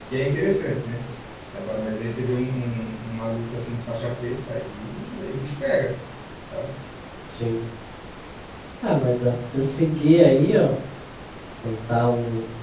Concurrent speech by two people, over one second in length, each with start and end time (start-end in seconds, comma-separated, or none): none